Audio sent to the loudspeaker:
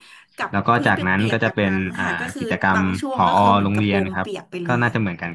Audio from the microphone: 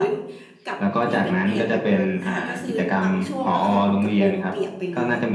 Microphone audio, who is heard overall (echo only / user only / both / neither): echo only